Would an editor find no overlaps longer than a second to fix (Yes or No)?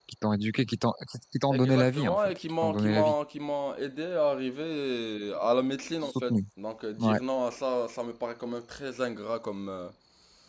No